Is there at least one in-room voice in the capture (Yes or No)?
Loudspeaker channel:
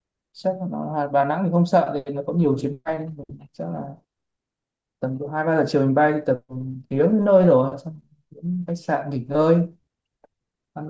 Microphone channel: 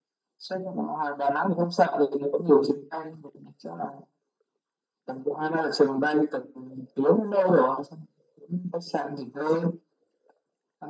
No